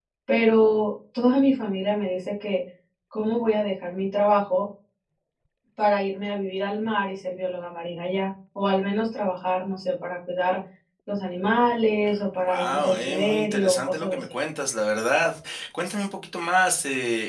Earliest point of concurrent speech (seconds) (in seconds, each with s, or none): 12.4 s